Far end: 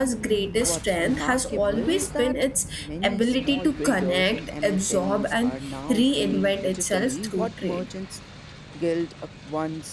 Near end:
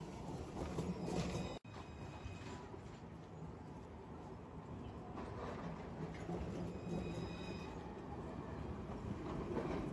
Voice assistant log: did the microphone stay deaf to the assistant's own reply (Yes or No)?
Yes